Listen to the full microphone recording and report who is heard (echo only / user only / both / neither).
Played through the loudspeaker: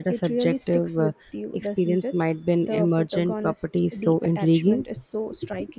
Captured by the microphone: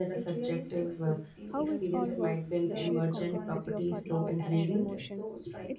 both